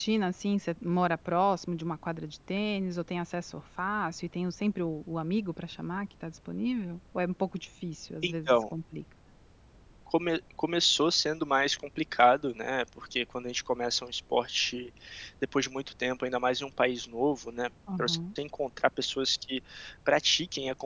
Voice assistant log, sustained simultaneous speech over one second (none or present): none